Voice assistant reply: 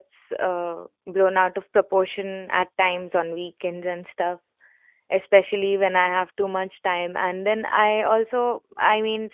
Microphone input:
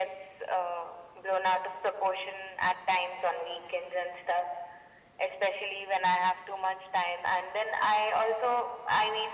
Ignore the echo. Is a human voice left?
No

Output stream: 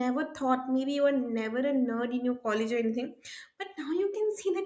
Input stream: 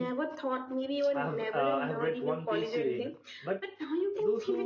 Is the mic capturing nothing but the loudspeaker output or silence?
No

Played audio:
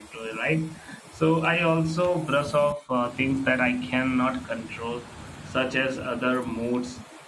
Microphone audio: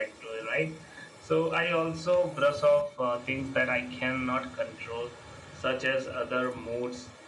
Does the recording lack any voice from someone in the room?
Yes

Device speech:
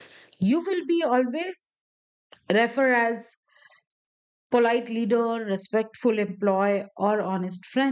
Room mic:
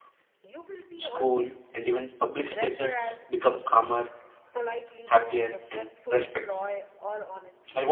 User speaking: Yes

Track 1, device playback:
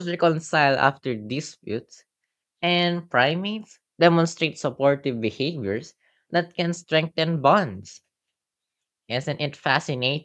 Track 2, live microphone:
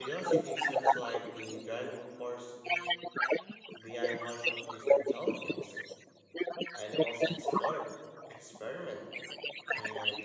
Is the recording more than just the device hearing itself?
Yes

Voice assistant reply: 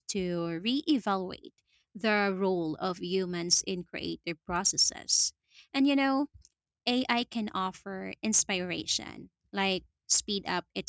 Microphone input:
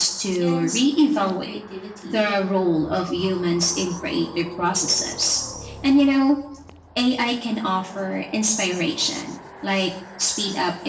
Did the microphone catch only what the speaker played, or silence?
No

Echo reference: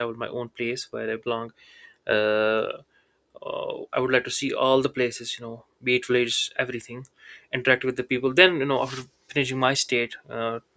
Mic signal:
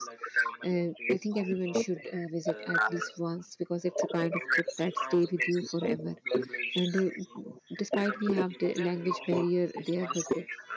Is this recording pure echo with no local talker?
No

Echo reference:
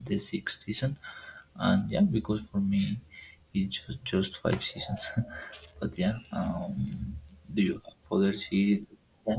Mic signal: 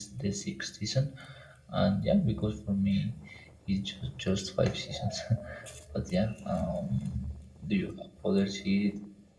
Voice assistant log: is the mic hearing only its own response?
Yes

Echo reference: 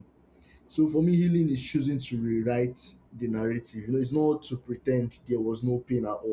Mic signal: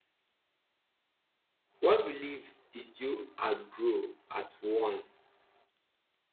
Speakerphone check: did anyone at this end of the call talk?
Yes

